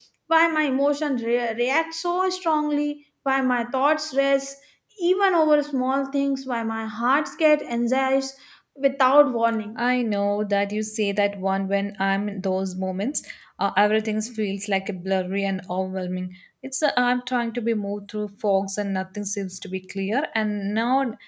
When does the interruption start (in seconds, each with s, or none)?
none